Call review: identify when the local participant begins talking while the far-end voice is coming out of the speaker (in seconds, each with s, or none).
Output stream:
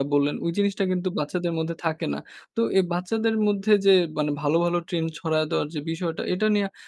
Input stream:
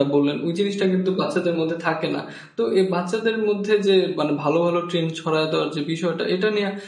none